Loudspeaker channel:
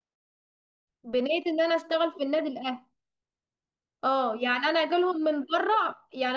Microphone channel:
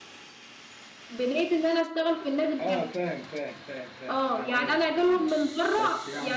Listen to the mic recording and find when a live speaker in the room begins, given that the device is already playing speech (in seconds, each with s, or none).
2.6 s